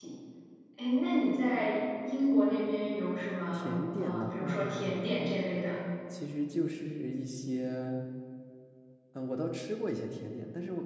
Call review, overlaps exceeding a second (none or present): present